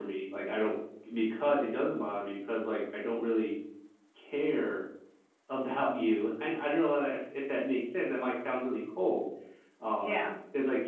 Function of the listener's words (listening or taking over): listening